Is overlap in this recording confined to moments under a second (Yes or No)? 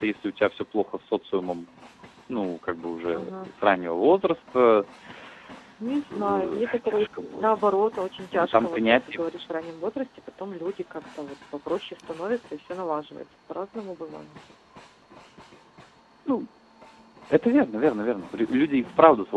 No